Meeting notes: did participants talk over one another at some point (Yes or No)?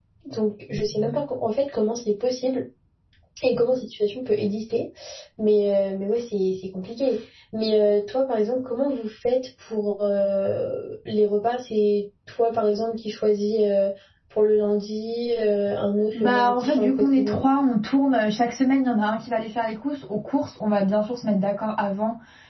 Yes